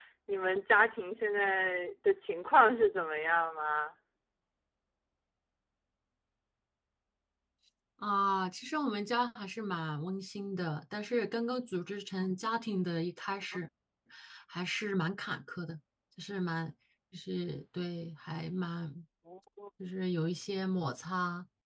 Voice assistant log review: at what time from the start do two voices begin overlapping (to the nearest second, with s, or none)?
none